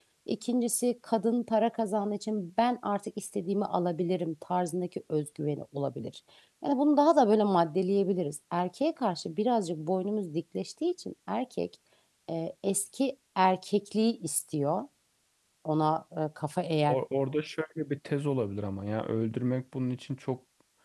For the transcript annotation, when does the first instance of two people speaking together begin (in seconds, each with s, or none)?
none